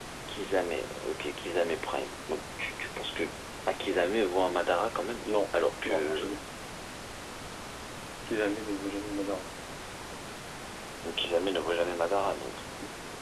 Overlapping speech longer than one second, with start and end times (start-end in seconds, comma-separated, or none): none